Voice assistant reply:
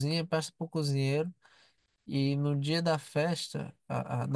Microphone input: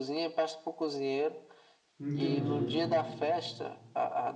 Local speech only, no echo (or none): entendi então.